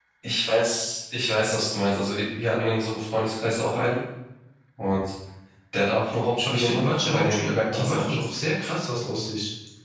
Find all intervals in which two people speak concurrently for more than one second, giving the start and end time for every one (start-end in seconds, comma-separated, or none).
6.4-8.3